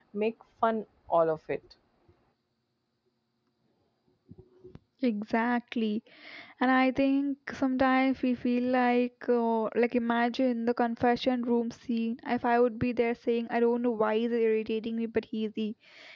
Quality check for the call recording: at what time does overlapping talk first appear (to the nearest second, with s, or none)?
none